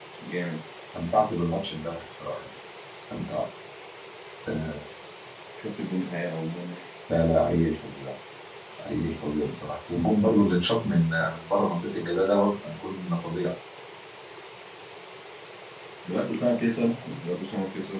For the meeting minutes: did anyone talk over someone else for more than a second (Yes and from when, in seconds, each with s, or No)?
No